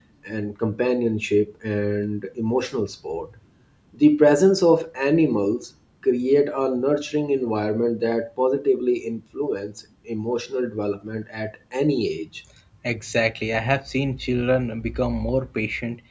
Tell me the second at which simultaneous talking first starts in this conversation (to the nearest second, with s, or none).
none